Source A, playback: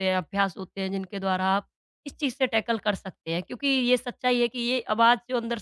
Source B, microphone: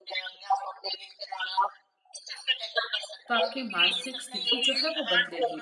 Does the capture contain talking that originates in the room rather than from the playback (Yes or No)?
Yes